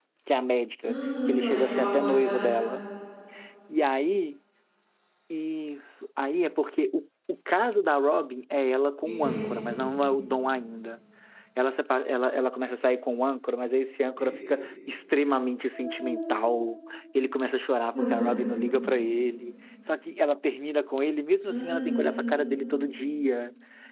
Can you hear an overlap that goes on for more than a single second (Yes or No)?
Yes